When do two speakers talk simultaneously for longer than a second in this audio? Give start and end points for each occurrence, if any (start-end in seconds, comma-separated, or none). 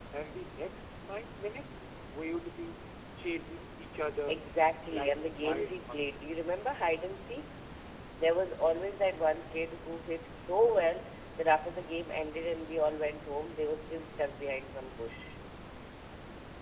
4.9-6.3